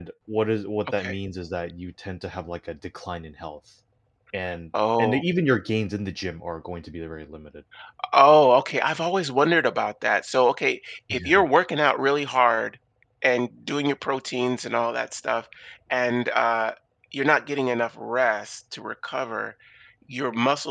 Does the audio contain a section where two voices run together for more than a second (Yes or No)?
No